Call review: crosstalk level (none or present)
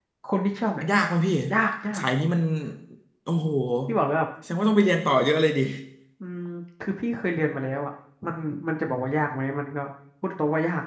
none